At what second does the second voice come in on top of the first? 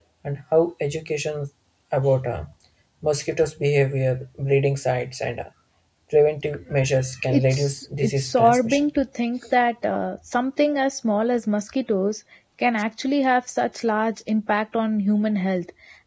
7.3 s

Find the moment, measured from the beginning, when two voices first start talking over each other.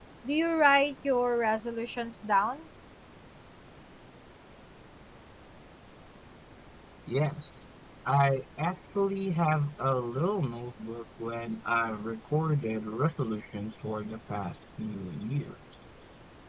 none

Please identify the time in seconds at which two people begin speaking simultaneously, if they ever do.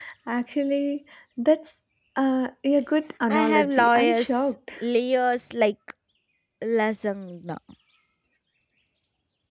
3.3 s

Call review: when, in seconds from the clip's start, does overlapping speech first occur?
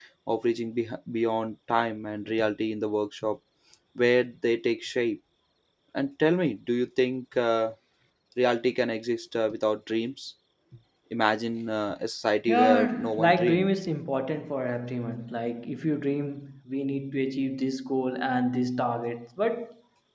12.5 s

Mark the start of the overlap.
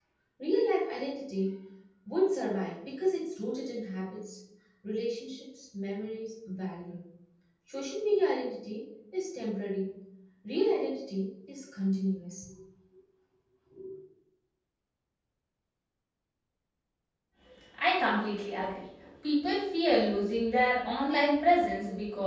none

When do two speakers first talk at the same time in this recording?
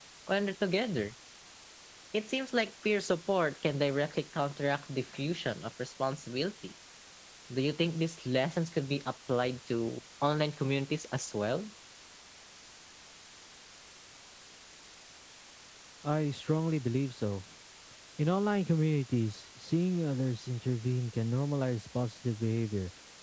none

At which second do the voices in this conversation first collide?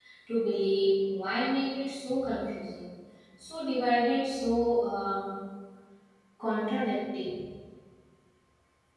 none

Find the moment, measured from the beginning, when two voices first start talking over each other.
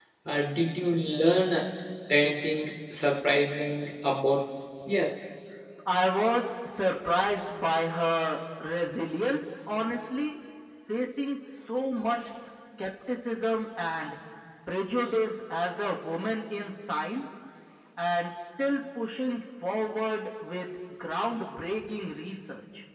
none

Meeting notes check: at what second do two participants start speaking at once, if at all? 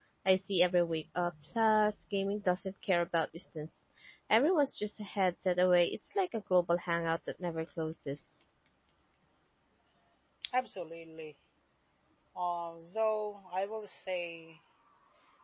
none

